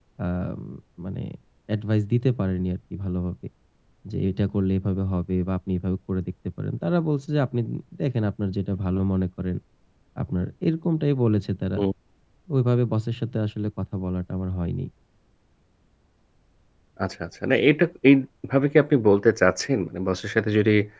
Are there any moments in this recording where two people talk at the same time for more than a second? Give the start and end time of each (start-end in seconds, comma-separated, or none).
none